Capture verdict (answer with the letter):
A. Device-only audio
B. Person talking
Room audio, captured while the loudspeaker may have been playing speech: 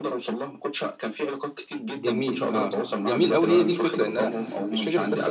B